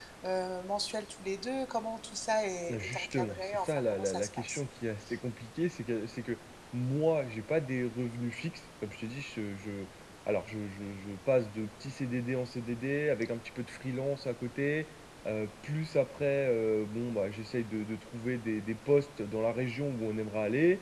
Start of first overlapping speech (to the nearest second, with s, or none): 3 s